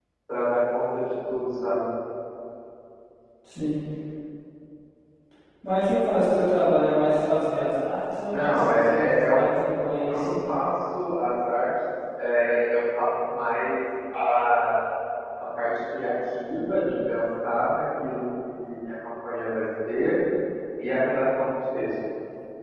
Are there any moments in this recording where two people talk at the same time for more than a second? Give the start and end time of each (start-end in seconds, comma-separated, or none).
8.3-9.6